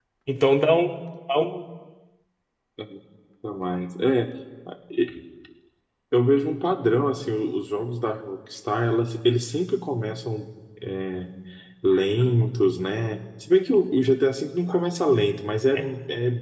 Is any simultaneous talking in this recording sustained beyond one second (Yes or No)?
No